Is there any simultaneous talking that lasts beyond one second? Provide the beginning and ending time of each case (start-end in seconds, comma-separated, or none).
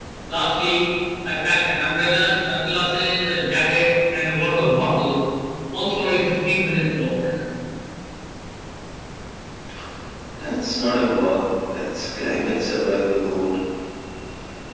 none